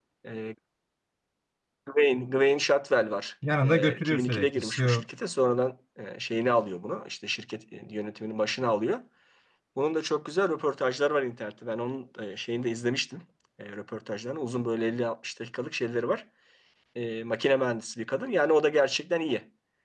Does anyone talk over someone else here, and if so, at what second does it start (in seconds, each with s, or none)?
3.4 s